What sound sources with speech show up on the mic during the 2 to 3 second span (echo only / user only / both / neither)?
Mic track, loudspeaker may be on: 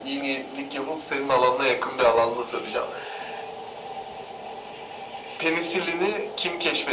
echo only